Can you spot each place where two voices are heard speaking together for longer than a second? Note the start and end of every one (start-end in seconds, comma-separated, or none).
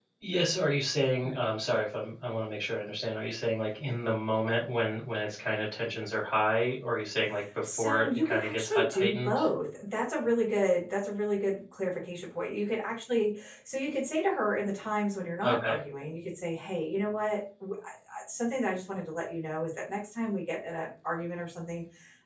7.6-9.4